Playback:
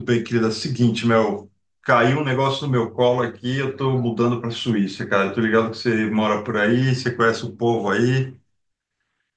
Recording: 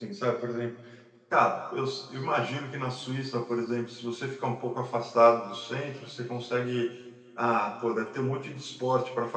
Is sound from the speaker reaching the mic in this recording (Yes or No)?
No